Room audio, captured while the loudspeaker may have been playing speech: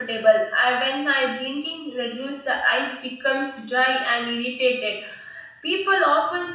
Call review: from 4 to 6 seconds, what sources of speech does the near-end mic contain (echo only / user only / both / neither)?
user only